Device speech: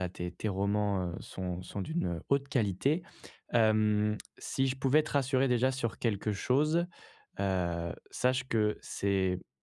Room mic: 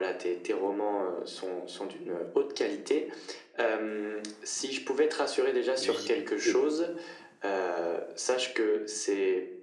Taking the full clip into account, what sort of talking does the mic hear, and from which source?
both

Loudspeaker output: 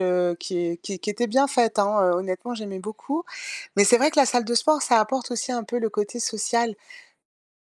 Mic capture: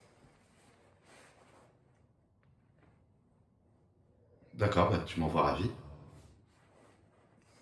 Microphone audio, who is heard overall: user only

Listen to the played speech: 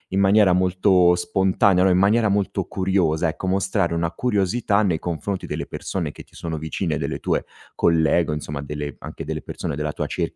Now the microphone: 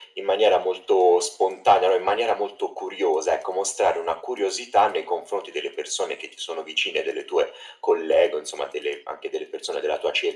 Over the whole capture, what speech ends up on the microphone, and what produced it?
echo only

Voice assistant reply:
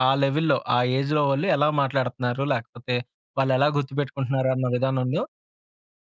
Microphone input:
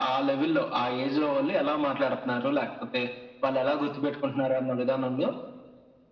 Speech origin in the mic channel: echo only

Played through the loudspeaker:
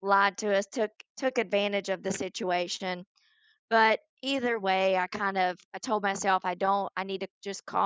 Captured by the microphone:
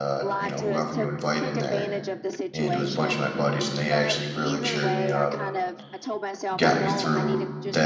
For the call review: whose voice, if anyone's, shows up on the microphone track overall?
both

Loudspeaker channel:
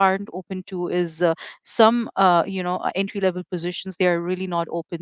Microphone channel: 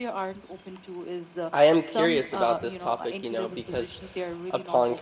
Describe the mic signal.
both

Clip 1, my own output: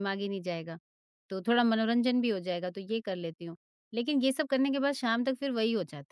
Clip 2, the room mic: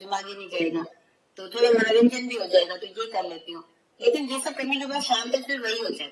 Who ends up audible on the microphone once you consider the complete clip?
echo only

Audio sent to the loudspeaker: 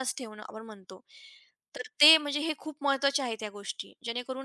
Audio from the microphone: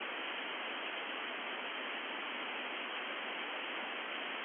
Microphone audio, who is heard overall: neither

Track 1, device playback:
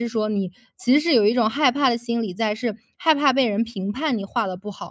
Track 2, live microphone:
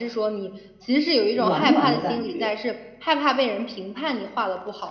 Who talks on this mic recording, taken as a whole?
both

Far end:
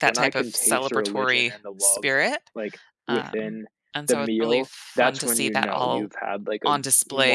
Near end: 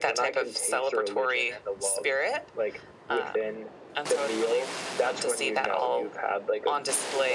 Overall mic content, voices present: echo only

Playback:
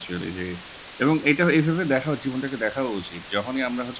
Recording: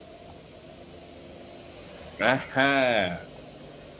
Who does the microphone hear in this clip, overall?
user only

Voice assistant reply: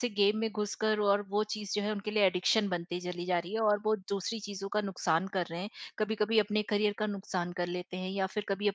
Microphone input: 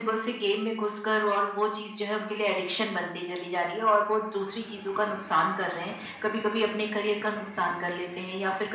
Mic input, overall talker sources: echo only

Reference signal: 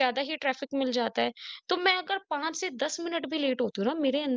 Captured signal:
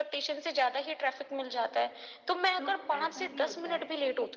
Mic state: both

